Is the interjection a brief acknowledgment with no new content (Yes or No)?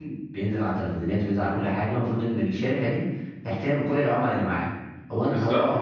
No